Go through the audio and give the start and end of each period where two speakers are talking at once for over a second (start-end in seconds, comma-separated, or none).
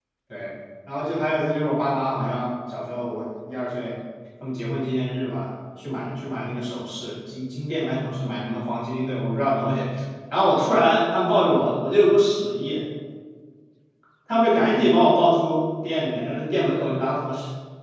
none